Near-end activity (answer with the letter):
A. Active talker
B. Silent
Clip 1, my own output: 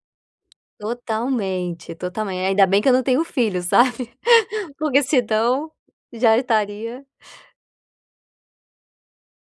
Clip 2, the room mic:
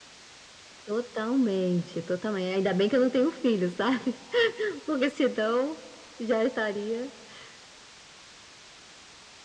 B